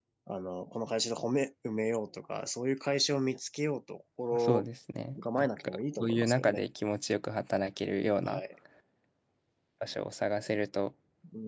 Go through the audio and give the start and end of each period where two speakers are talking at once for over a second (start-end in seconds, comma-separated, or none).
5.4-6.6